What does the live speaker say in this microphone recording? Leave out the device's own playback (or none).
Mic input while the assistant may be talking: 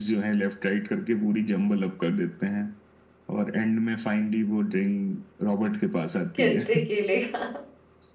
कंचे खेलेगा